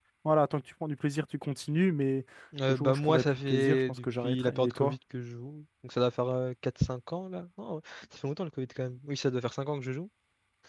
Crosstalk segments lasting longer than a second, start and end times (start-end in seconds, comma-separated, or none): 2.7-4.9